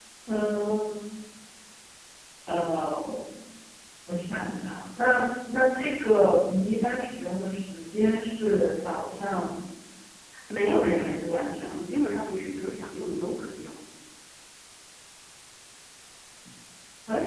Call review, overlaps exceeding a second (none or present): present